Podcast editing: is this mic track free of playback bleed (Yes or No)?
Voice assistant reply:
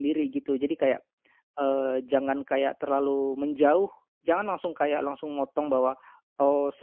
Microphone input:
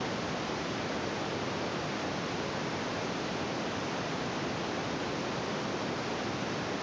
Yes